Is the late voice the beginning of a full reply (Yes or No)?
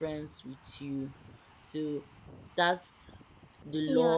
Yes